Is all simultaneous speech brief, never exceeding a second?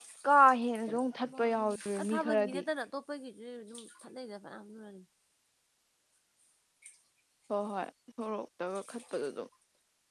No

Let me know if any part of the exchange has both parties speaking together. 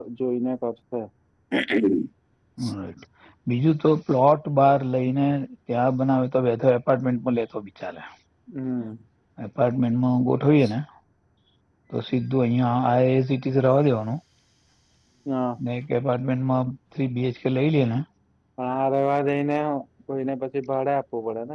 No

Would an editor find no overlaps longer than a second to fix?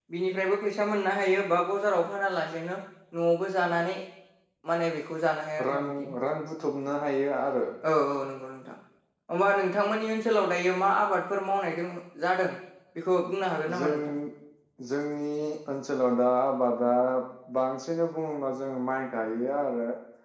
Yes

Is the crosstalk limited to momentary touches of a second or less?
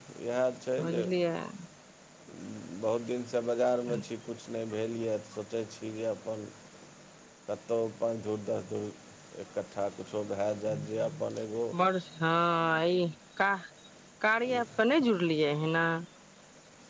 Yes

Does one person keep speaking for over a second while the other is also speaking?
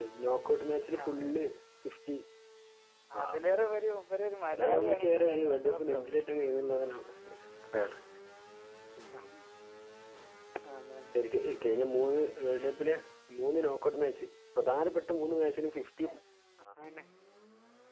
Yes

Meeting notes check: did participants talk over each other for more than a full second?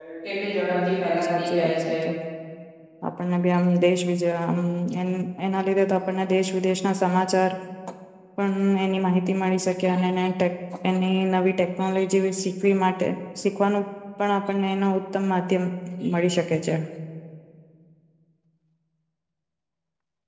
Yes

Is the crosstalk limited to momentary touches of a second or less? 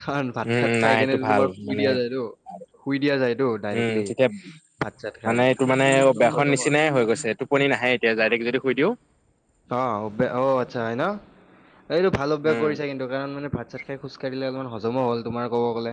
No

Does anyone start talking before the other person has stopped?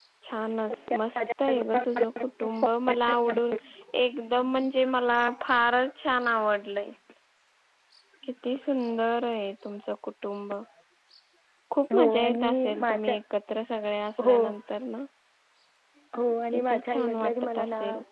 Yes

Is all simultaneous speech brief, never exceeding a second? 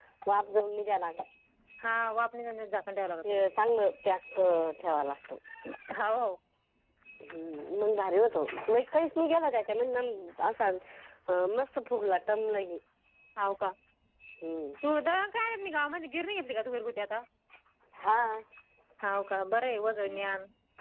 Yes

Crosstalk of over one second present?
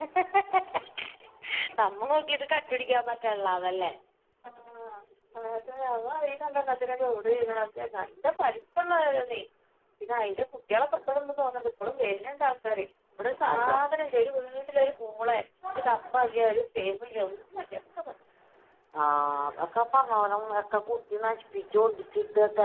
No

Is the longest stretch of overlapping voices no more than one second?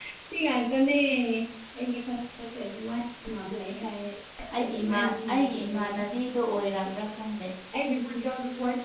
No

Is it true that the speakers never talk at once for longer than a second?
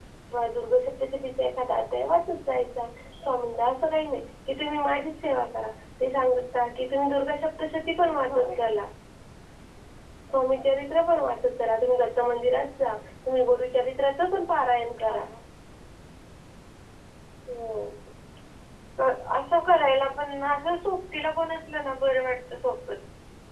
Yes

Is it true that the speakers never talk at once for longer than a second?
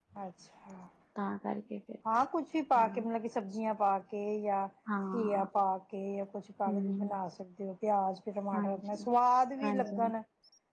Yes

